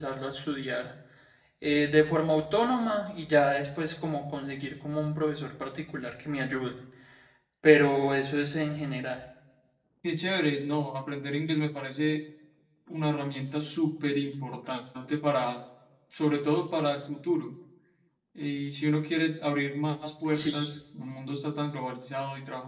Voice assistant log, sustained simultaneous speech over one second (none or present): none